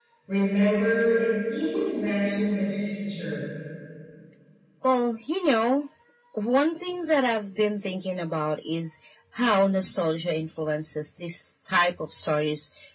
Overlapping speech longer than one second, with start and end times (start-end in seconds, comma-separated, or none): none